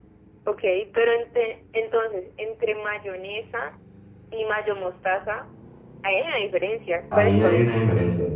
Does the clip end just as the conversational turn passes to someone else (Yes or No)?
Yes